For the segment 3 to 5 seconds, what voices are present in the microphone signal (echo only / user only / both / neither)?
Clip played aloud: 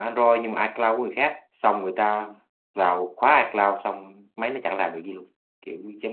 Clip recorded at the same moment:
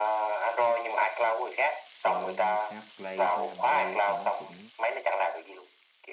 both